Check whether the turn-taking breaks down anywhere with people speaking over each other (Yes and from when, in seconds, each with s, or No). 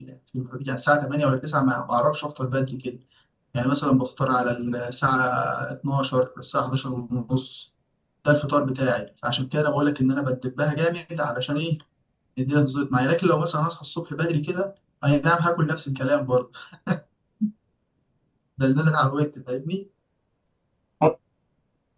No